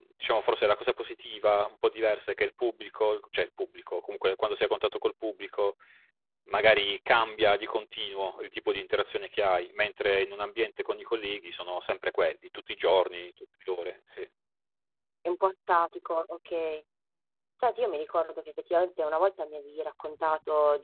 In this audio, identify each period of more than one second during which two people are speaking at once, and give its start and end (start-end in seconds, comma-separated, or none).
none